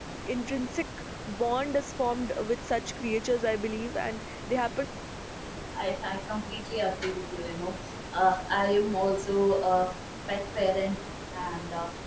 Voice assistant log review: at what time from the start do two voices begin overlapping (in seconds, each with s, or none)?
none